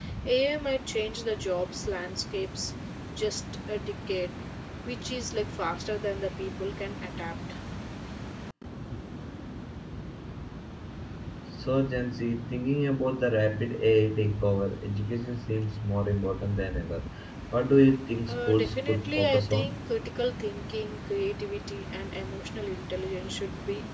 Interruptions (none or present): present